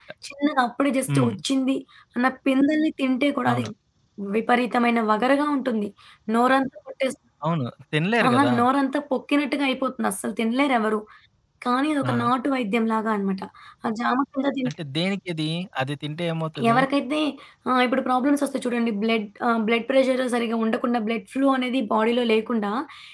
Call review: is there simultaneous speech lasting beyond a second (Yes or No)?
No